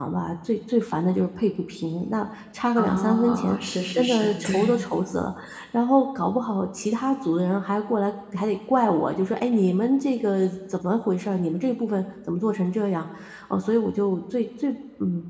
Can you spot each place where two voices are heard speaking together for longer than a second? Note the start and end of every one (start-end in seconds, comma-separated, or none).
2.8-4.8